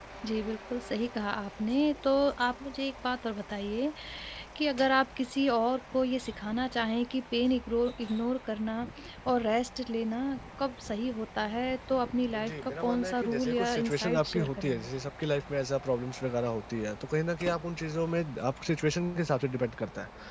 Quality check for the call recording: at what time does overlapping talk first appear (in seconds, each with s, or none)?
12.3 s